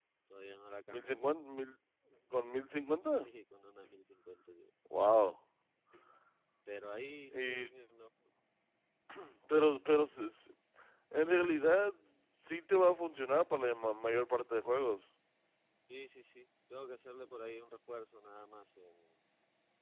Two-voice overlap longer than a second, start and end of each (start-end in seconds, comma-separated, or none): none